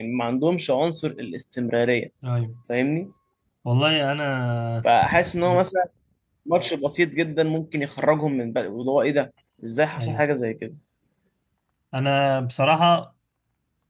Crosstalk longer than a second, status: none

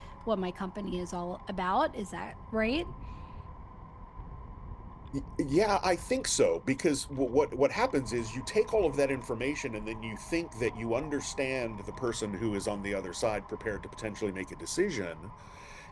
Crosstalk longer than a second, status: none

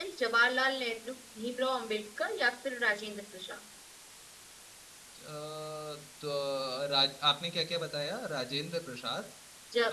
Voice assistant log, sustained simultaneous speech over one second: none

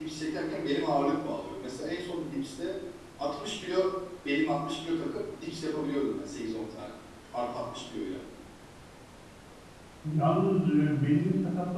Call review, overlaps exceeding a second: none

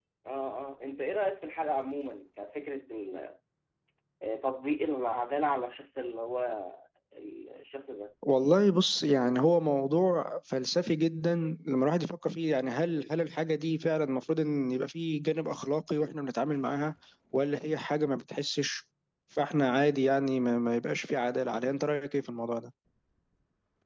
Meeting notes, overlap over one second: none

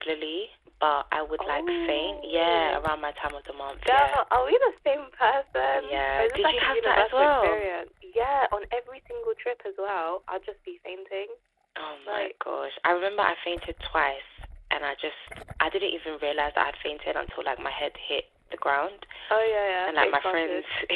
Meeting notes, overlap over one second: present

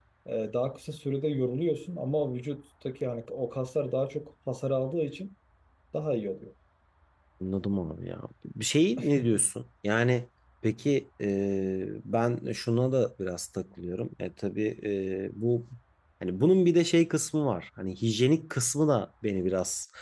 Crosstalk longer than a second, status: none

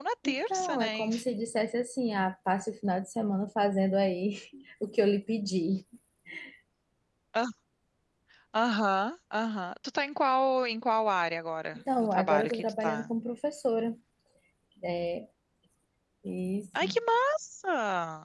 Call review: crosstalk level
present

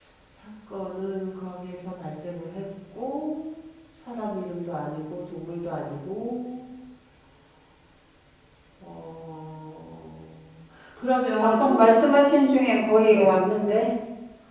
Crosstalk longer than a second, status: none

